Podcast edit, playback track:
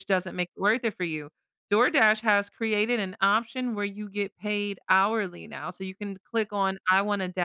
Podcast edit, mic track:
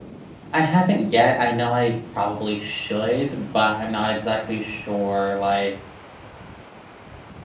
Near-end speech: present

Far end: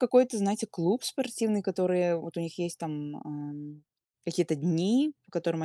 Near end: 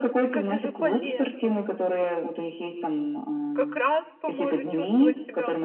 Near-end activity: present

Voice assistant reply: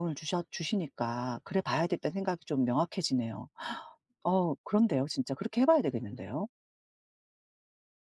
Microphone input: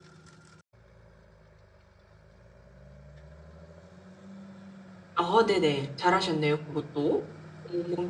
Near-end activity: present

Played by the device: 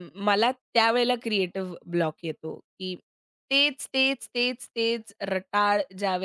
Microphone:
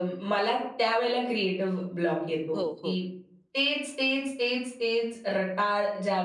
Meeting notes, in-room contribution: present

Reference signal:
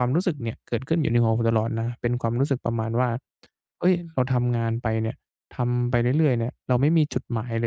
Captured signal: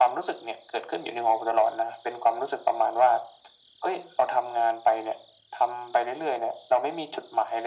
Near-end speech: none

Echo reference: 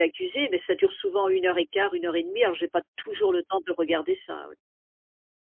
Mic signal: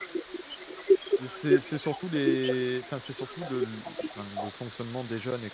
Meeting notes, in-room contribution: present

